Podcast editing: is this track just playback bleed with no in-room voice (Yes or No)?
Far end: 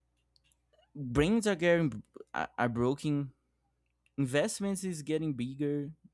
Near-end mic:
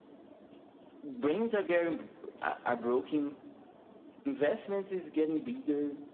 Yes